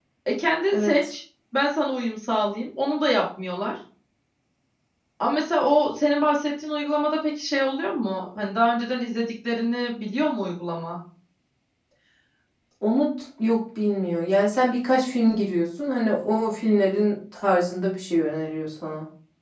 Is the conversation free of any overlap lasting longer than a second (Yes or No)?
Yes